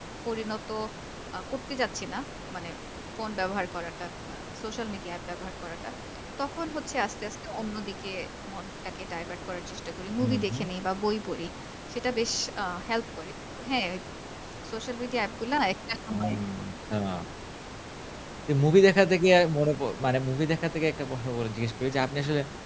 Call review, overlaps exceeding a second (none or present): none